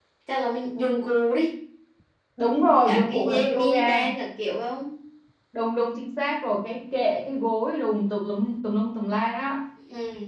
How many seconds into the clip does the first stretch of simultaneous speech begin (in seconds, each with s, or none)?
2.9 s